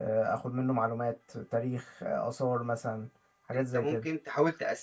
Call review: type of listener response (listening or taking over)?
taking over